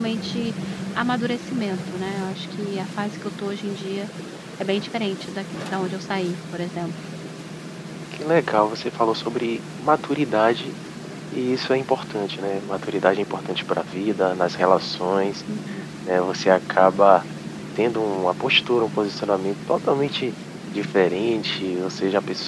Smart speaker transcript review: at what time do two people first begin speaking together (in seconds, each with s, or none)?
none